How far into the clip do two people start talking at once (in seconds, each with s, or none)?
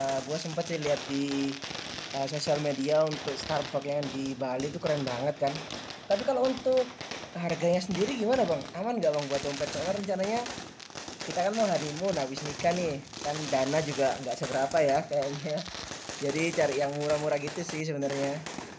none